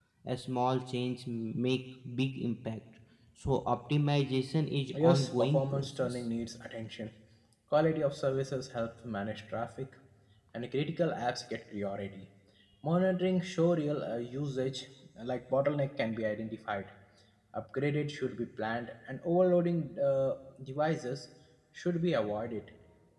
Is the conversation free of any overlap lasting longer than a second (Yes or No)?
No